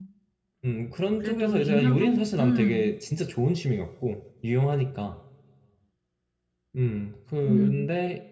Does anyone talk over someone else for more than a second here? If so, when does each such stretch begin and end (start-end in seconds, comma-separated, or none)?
1.2-2.9